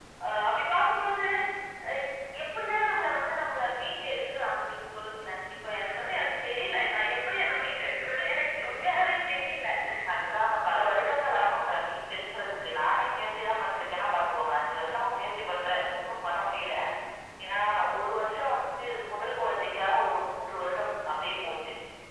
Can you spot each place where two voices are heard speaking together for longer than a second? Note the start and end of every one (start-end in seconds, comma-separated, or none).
none